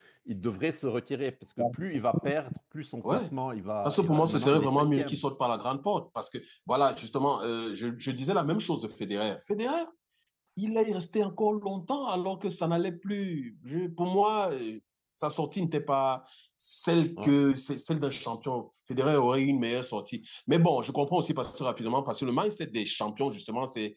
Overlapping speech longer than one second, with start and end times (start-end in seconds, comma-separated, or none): 3.8-5.2